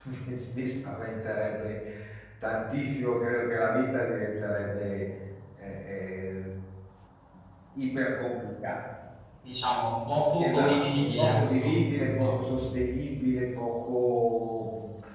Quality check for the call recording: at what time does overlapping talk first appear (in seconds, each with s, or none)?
10.4 s